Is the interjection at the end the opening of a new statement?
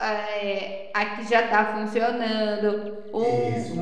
No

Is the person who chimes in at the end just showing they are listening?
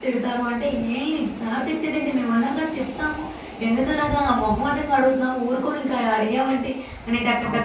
Yes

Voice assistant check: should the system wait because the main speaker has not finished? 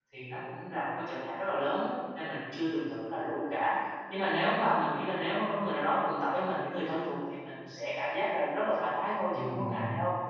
No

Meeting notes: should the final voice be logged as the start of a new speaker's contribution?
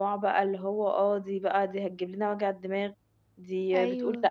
No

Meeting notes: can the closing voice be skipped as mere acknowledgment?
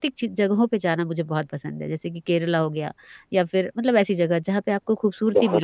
No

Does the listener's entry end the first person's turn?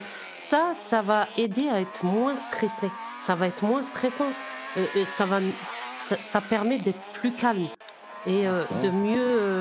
No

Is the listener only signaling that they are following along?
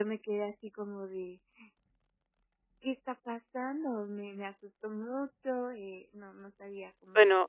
No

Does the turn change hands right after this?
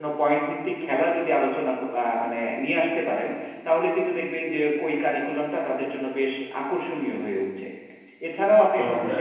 No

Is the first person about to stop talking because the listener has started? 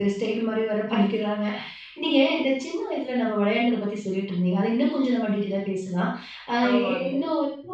No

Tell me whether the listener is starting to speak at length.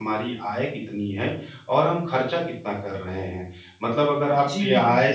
No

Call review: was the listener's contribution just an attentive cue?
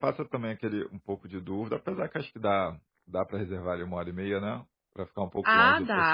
No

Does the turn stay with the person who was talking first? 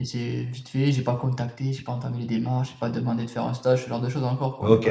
No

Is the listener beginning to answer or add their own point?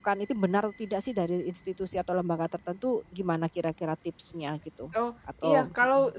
Yes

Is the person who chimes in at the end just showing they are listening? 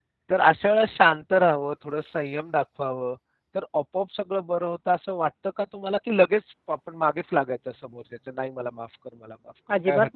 No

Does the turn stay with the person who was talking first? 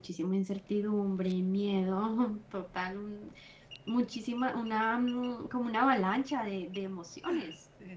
No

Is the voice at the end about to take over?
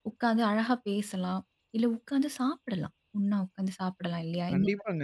Yes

